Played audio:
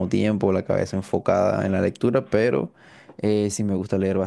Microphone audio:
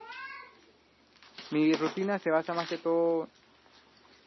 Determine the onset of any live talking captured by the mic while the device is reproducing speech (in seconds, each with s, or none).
1.5 s